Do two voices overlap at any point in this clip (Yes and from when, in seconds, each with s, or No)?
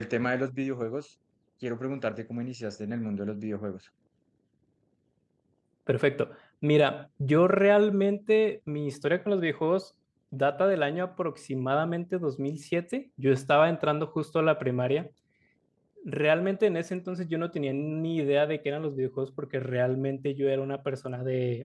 No